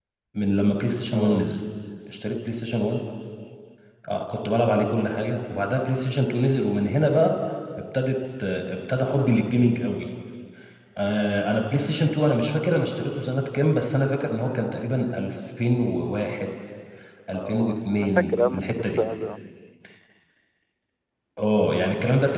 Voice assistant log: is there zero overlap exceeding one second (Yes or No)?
No